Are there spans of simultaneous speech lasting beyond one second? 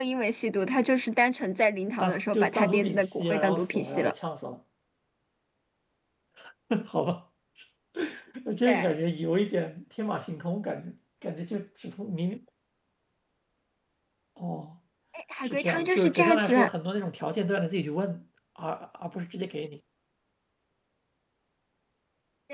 Yes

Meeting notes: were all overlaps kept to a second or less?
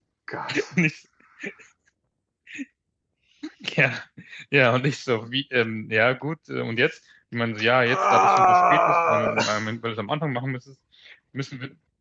No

